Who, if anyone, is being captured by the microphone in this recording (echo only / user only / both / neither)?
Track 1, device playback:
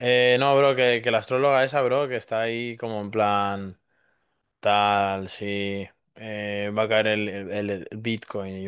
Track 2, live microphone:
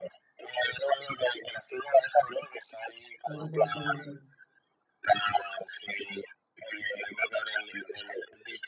both